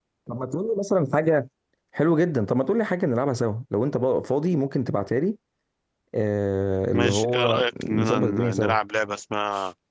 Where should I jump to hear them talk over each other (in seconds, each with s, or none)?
6.9 s